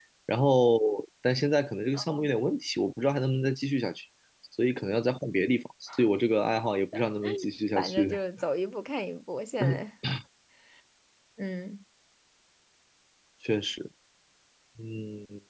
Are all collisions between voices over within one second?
Yes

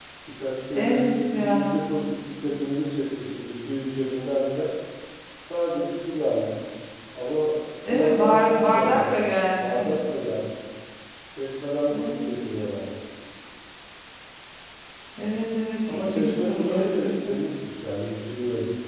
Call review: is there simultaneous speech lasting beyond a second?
Yes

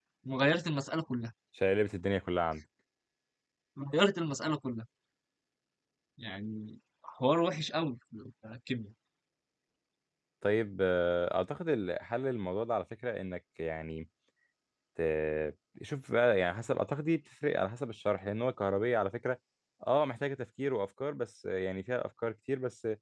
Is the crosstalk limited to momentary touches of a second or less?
Yes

